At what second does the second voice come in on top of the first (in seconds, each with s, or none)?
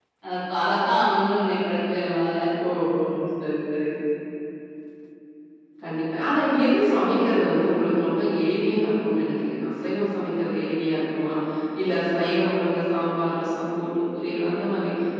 none